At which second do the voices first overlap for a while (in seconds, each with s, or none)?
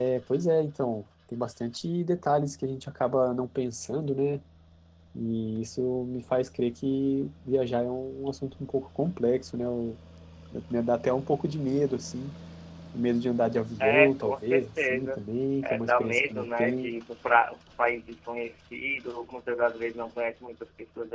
13.8 s